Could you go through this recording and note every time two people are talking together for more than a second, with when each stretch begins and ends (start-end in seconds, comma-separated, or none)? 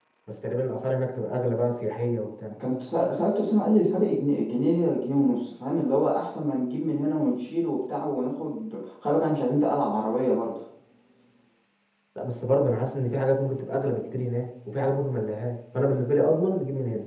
none